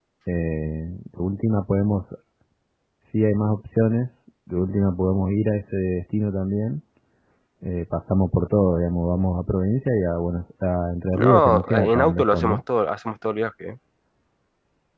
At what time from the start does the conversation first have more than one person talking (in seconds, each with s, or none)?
11.1 s